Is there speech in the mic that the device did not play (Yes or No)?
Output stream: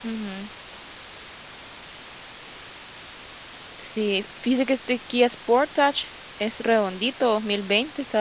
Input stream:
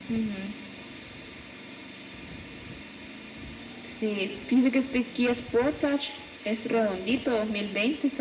No